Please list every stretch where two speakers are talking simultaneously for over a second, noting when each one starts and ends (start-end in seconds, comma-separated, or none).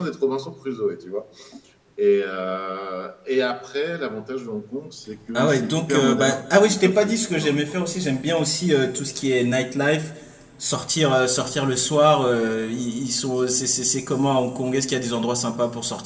5.3-7.7